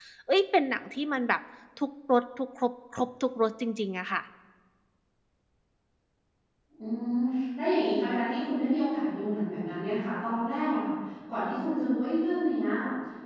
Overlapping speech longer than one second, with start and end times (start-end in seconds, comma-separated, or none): none